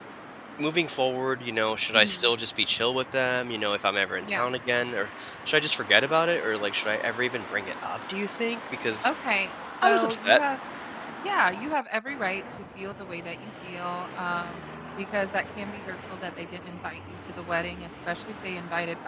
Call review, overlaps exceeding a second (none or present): none